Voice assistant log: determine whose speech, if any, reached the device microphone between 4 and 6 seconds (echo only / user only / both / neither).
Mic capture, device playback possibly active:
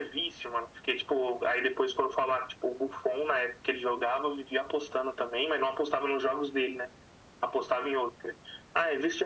echo only